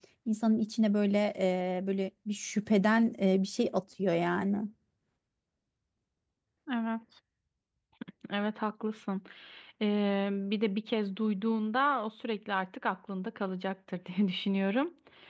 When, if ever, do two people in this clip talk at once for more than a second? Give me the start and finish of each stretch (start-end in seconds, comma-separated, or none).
none